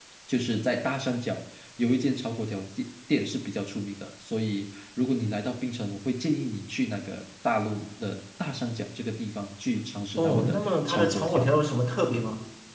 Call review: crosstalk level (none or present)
present